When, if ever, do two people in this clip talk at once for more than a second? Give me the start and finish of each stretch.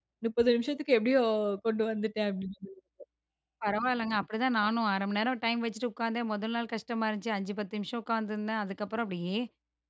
none

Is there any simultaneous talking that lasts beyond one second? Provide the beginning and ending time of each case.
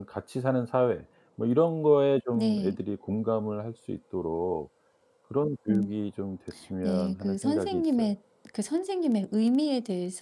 6.8-8.1

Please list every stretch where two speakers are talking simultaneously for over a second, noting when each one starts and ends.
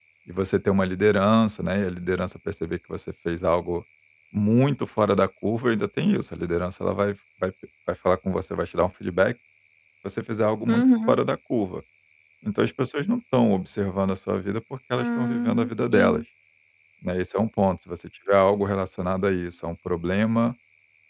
15.0-16.2

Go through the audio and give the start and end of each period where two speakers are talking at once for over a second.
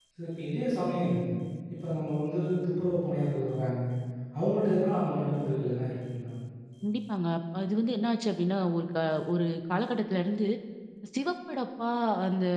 none

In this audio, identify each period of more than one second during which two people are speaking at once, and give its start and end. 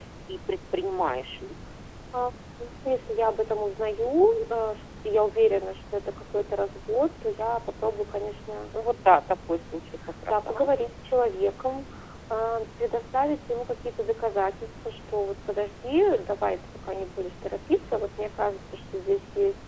none

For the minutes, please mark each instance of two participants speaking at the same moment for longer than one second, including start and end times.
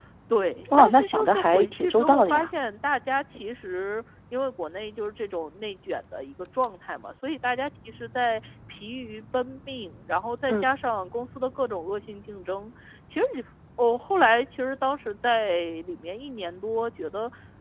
0.8-2.5

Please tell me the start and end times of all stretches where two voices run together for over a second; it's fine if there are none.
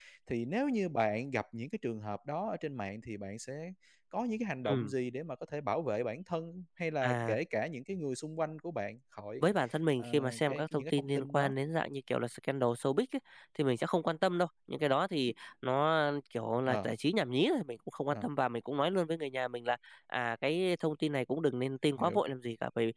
10.0-11.5

